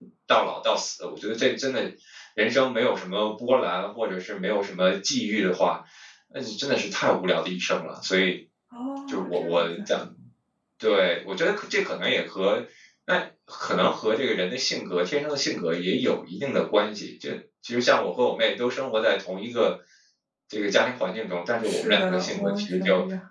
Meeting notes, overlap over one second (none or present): present